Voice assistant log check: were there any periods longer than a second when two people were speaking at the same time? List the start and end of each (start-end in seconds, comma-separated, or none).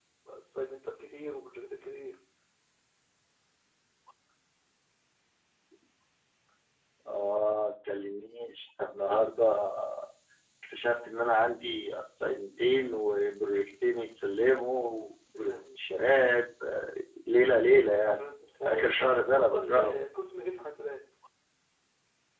18.0-20.0